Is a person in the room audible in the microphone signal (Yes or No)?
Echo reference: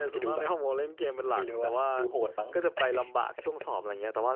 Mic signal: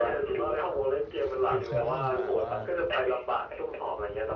Yes